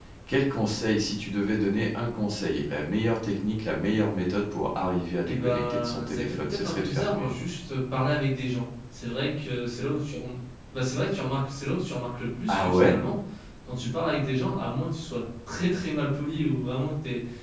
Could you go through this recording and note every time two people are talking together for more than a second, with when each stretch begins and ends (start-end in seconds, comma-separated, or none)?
5.3-7.3